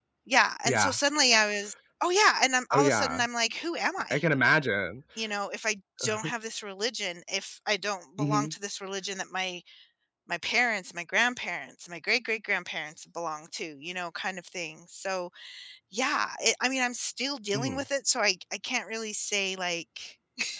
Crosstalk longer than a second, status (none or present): none